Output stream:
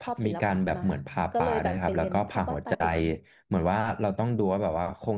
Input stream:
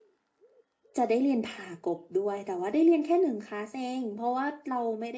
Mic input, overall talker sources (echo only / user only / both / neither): user only